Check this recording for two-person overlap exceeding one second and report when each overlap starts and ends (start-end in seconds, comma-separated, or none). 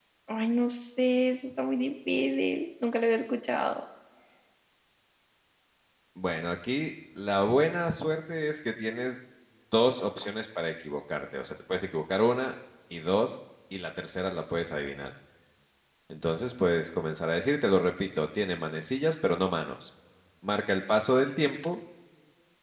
none